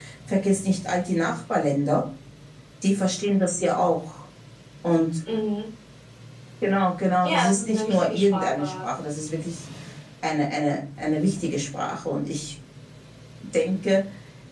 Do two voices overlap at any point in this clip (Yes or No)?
Yes